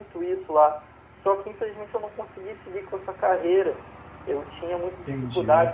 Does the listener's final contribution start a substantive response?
No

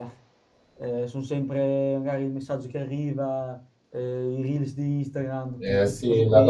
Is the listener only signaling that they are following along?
No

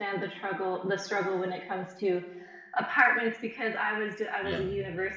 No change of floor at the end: Yes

